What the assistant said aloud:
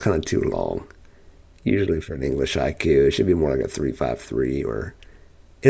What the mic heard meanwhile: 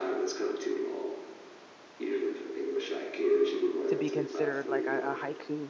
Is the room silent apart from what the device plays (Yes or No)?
No